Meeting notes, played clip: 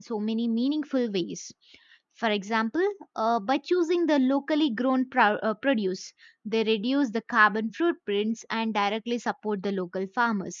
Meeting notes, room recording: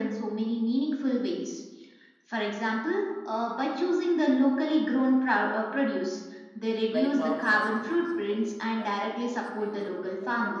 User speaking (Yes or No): Yes